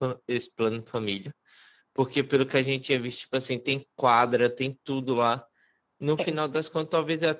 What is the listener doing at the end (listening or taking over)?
listening